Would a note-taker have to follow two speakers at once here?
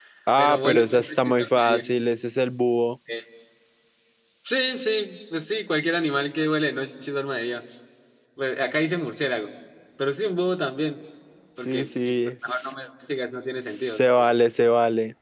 Yes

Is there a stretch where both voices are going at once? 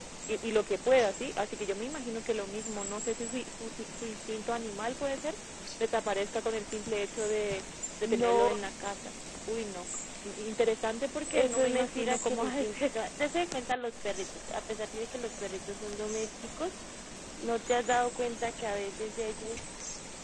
Yes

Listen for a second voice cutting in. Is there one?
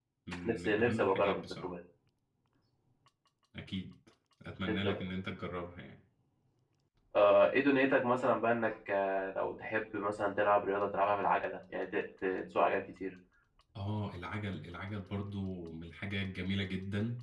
Yes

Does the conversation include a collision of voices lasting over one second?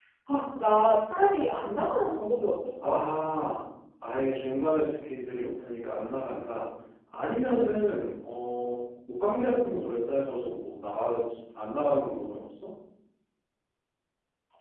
No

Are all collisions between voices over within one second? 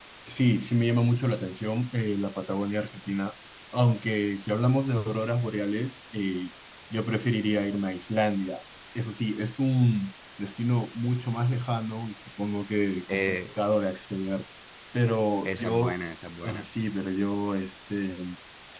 Yes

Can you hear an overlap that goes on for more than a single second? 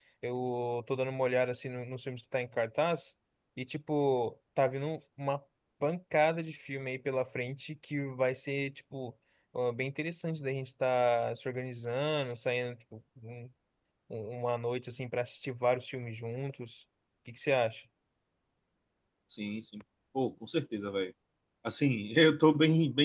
No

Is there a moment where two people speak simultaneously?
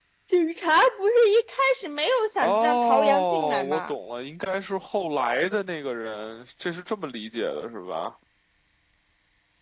Yes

